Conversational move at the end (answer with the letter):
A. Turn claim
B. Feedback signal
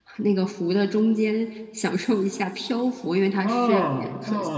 A